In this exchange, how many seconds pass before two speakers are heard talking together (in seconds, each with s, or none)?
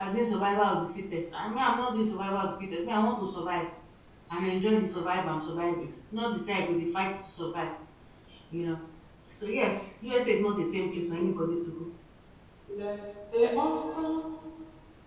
none